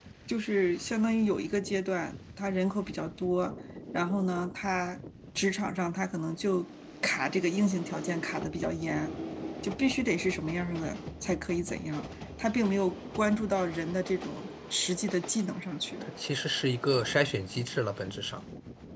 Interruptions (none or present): none